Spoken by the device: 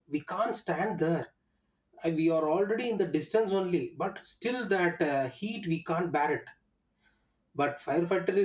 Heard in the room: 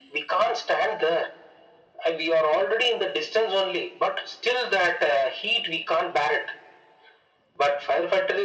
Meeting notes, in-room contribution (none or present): none